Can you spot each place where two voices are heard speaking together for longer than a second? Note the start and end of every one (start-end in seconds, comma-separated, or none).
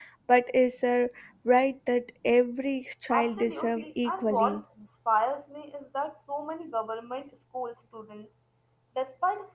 3.1-4.6